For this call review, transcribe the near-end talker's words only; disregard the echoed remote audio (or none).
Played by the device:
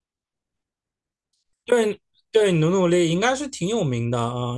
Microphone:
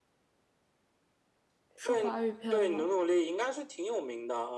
是华语片吗？